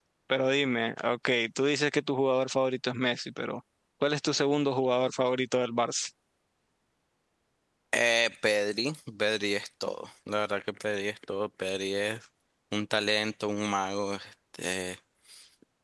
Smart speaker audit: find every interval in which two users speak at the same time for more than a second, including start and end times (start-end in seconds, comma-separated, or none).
none